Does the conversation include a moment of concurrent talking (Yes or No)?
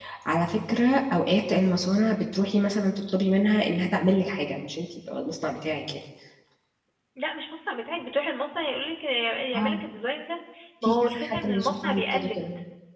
Yes